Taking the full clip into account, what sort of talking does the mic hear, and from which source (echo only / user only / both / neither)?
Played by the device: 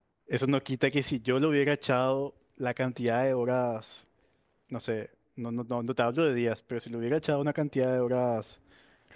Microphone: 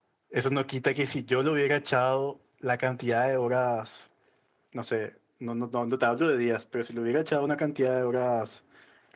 echo only